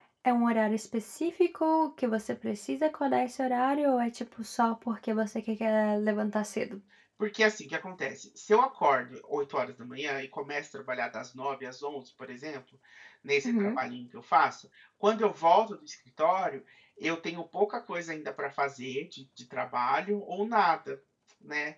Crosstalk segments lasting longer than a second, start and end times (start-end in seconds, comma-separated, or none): none